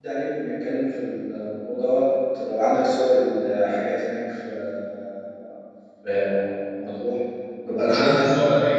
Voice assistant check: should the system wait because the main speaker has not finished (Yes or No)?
No